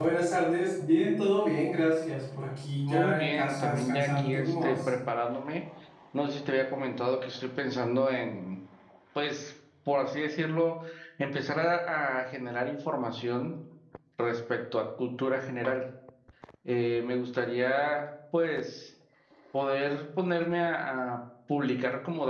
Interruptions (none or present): present